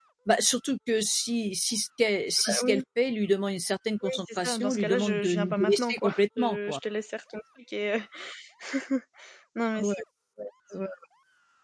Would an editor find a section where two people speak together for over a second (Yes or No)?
Yes